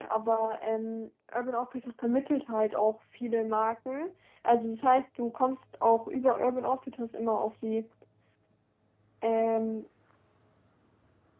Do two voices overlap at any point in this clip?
No

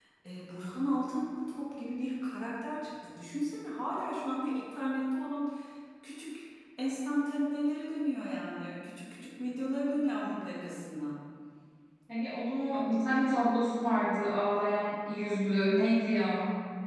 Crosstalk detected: No

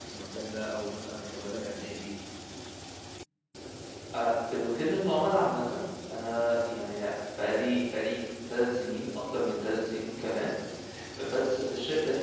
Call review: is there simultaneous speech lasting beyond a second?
No

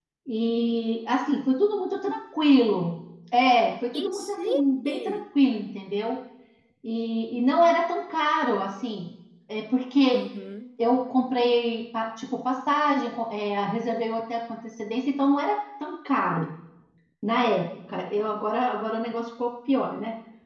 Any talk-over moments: Yes, from 3.9 s

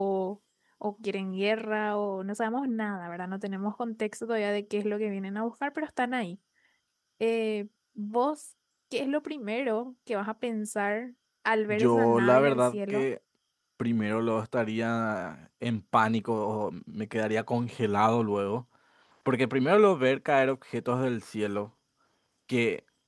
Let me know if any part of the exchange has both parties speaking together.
Yes, from 11.7 s

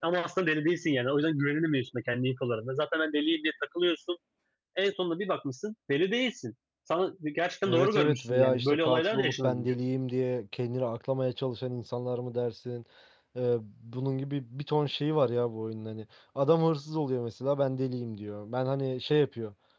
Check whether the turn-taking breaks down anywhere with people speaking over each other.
Yes, from 7.7 s

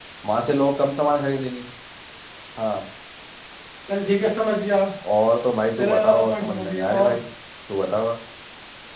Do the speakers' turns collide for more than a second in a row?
Yes, from 5.8 s

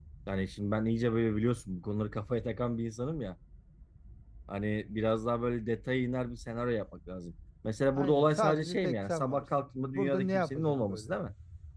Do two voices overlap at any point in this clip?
Yes, from 8.0 s

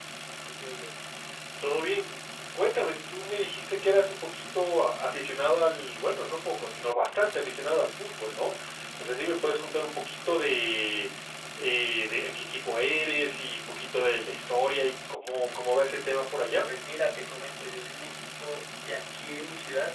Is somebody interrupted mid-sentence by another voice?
No

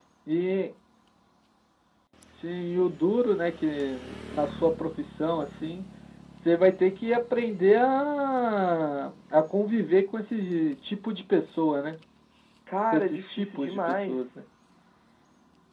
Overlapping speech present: Yes, from 12.9 s

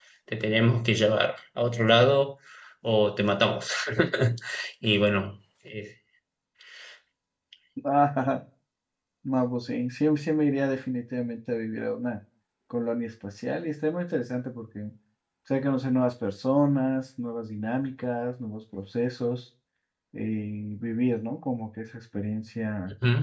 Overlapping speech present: No

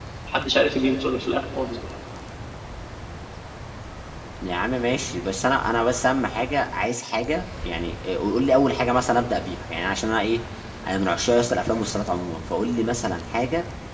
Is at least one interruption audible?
No

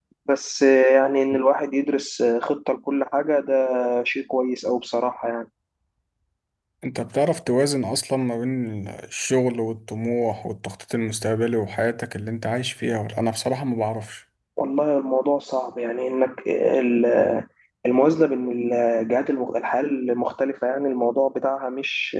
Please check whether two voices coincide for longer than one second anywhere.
No

